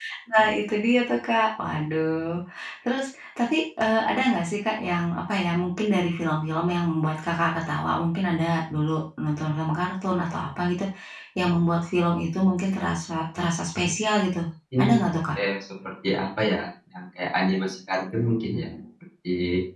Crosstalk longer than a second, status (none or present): none